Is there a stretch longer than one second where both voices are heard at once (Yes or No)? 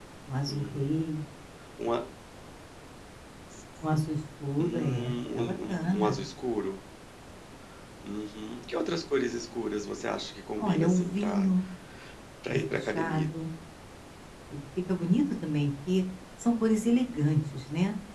Yes